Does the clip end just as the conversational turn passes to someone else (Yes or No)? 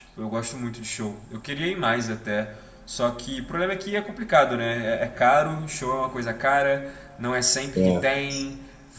No